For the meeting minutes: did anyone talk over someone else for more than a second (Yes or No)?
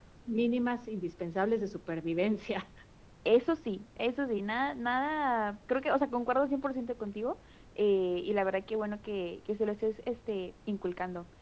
No